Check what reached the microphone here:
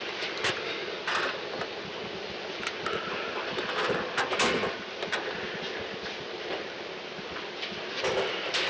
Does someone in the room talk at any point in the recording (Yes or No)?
No